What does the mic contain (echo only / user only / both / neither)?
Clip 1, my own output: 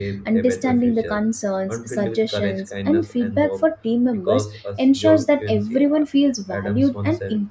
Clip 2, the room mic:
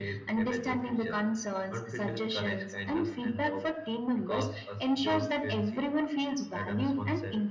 echo only